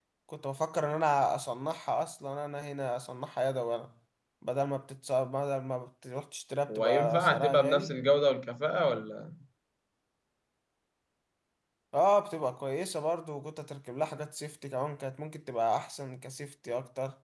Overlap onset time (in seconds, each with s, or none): 6.7 s